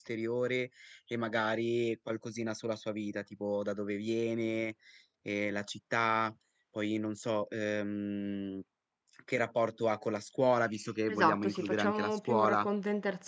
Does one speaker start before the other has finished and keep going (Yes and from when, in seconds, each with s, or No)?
Yes, from 11.1 s